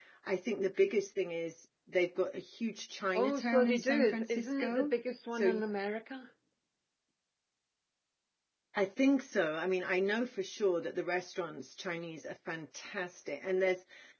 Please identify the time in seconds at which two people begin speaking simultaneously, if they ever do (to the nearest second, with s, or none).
3 s